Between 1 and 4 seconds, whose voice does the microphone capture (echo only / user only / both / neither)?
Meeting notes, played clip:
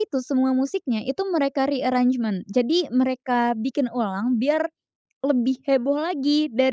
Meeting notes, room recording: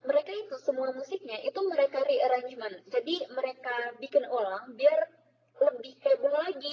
echo only